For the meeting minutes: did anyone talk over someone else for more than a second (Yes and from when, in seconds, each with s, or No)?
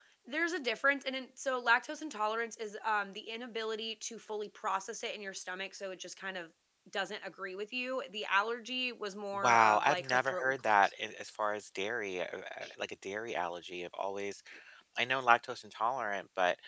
Yes, from 9.3 s